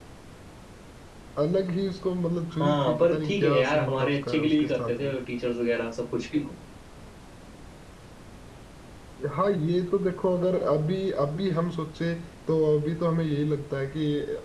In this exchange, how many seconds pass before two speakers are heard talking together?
3 s

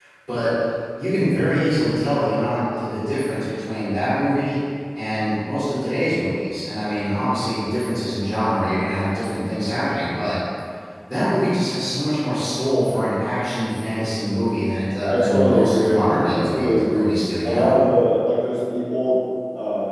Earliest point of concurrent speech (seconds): 15 s

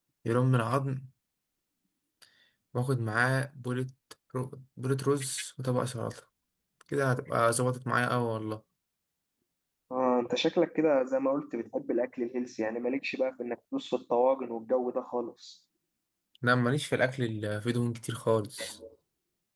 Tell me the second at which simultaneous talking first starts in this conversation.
none

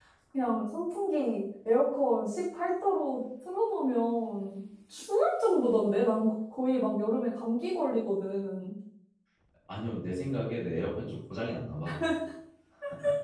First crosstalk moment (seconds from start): none

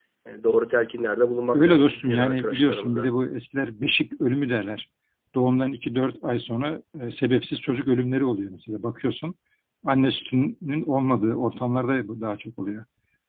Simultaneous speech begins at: 2 s

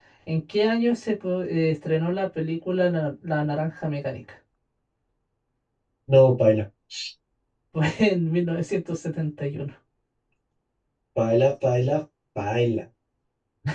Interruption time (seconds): none

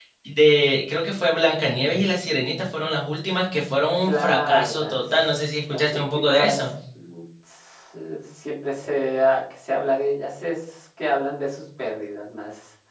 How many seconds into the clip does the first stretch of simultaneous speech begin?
4 s

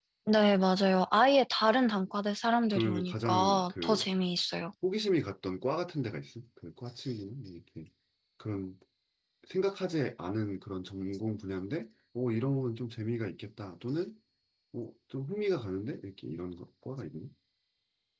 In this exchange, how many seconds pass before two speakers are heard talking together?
3 s

